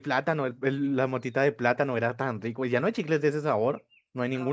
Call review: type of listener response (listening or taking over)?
taking over